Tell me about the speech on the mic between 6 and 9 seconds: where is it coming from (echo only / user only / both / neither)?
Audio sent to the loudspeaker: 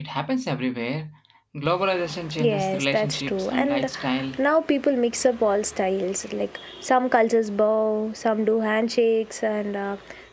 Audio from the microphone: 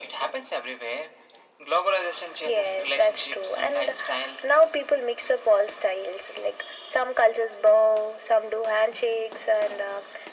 echo only